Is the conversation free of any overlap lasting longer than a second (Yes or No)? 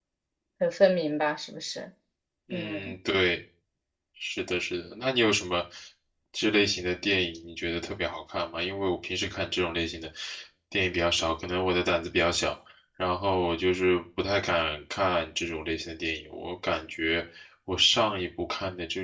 Yes